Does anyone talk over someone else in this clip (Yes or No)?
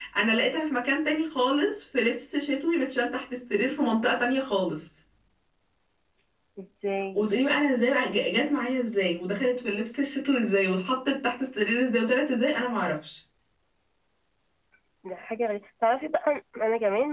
No